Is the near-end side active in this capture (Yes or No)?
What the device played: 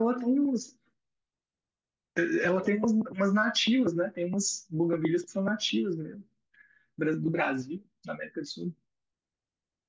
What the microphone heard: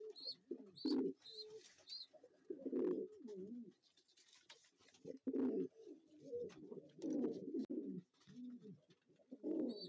No